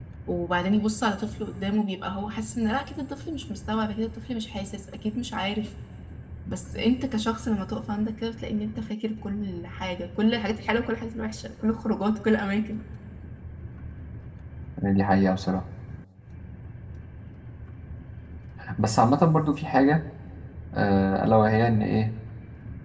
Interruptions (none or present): none